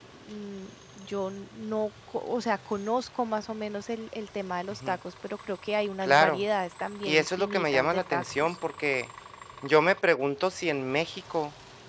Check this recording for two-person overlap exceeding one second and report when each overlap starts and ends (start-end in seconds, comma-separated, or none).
7.0-8.6